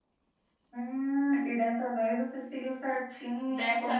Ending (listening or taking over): taking over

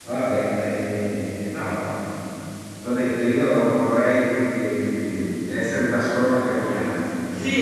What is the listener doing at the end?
taking over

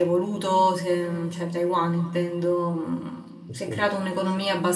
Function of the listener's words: listening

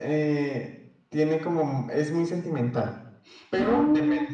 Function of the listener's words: listening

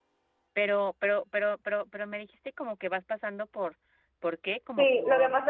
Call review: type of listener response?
taking over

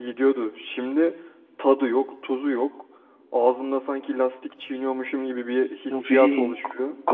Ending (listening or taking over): taking over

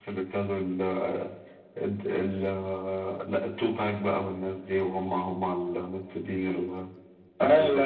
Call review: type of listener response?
taking over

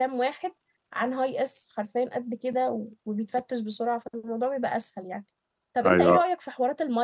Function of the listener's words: listening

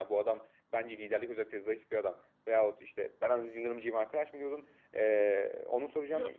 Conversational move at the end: taking over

